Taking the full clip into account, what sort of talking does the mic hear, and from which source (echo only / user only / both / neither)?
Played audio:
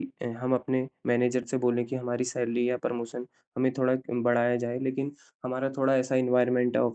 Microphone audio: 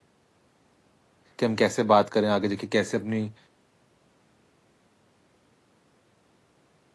user only